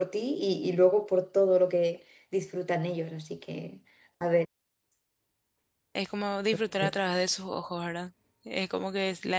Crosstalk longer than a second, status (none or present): none